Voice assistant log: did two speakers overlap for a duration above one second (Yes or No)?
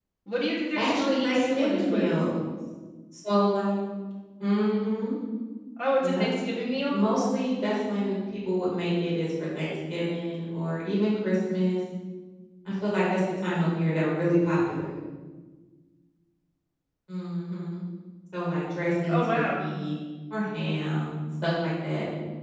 Yes